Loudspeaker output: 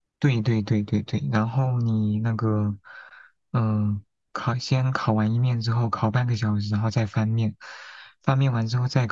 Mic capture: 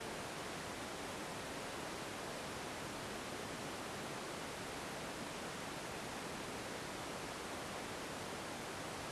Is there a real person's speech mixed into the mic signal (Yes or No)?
No